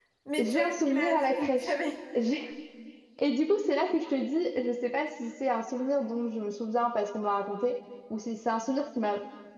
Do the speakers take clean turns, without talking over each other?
No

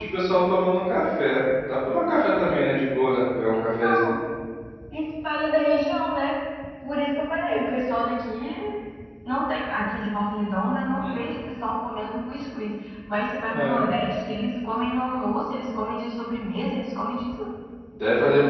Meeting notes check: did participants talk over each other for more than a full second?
No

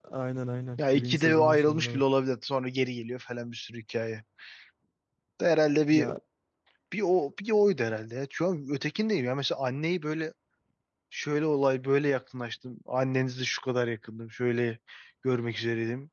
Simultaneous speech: Yes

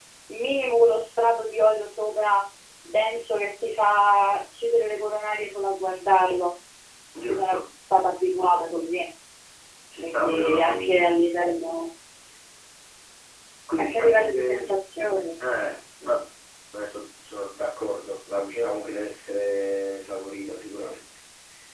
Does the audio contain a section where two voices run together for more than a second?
Yes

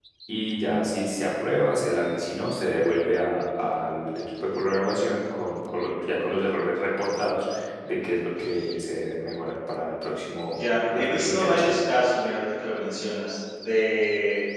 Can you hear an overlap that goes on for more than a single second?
Yes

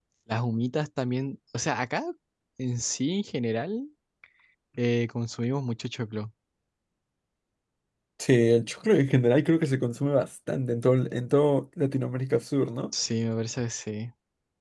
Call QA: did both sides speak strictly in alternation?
Yes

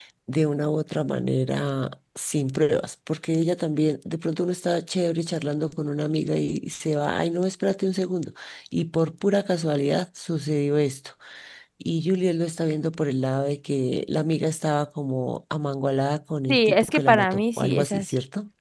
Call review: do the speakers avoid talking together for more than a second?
No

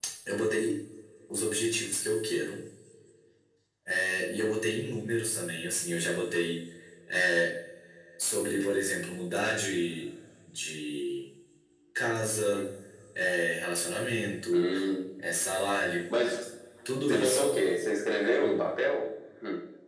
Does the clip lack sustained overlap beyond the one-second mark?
Yes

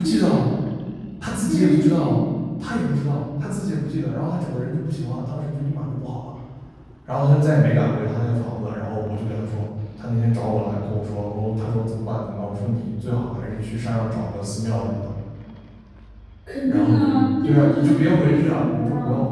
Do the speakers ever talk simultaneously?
Yes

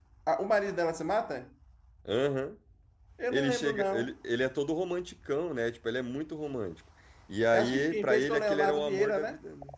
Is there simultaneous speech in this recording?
Yes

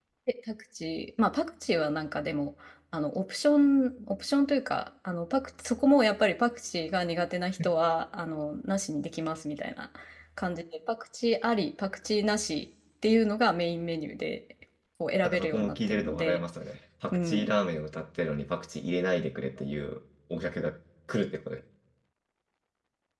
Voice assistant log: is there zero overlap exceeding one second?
No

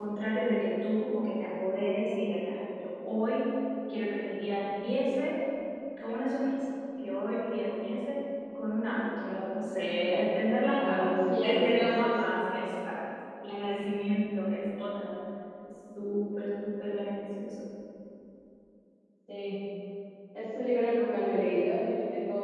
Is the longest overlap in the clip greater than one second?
Yes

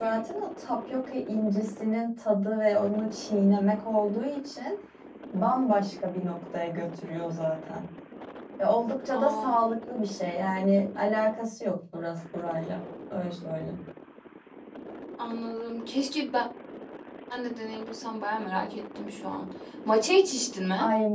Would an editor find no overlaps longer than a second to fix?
Yes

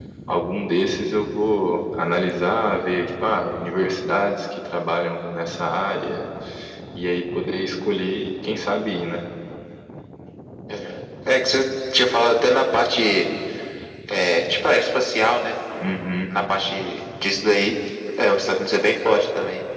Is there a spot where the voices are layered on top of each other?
No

